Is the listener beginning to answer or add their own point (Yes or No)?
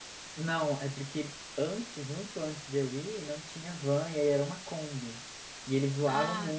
No